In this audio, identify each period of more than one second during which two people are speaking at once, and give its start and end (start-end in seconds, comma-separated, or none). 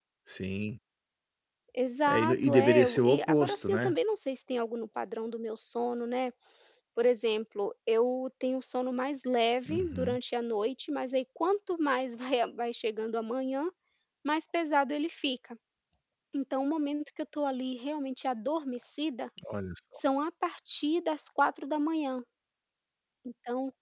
2.1-3.9